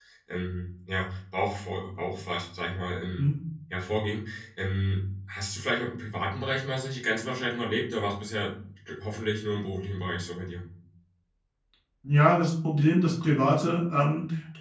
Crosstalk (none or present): none